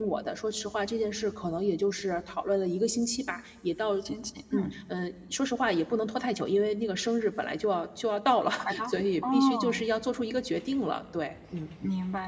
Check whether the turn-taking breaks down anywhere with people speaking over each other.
Yes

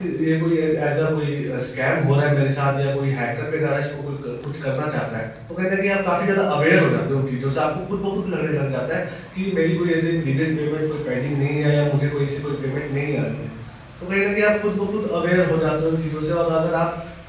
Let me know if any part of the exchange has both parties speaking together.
No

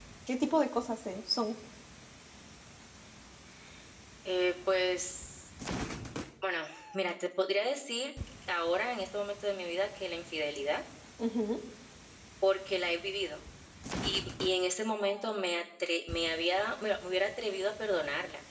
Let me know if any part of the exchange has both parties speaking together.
No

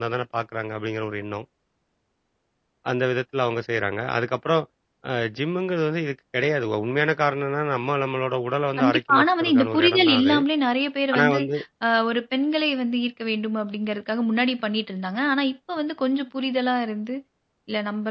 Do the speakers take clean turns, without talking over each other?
No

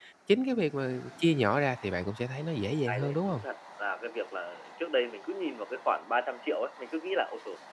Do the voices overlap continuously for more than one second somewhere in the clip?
No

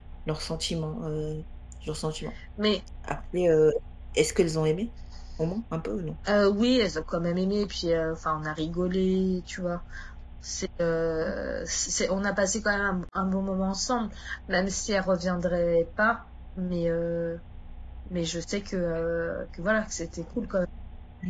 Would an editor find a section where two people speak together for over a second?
No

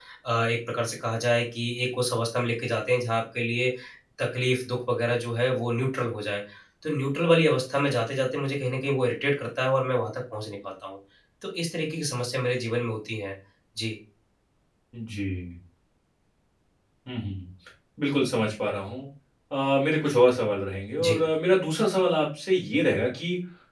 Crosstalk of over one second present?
No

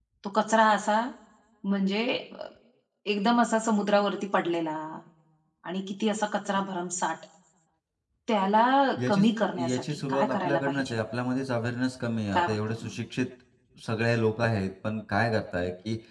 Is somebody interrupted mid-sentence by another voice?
Yes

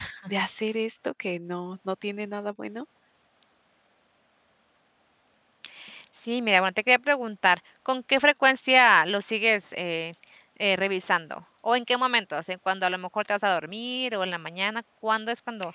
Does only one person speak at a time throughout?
Yes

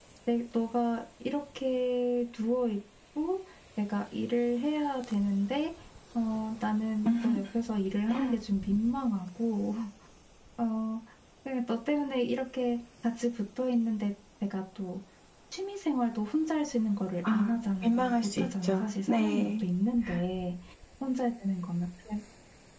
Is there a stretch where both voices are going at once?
Yes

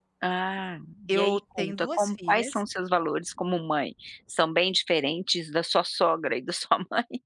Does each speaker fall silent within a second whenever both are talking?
No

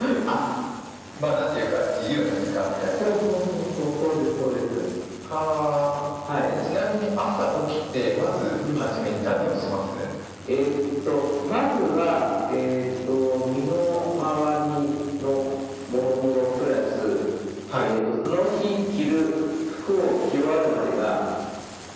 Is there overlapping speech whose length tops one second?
No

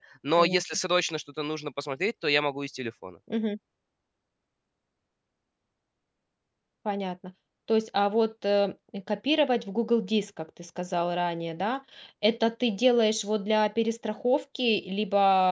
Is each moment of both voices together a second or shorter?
Yes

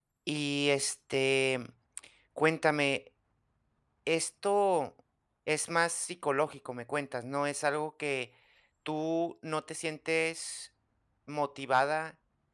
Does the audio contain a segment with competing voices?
No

